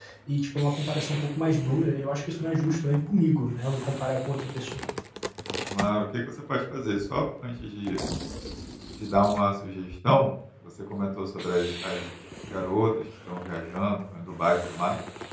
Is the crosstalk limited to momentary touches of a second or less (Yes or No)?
Yes